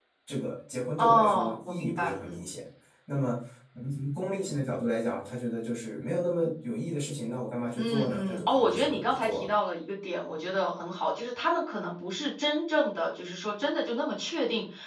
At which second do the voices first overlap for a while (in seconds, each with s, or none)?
1.0 s